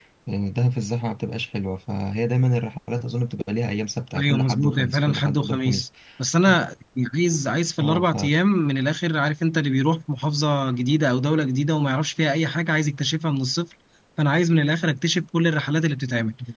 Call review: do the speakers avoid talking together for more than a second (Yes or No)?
No